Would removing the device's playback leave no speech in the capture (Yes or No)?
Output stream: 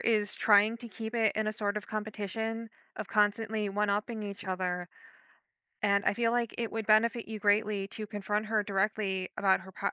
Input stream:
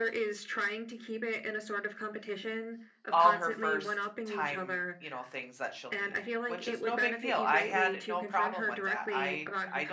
No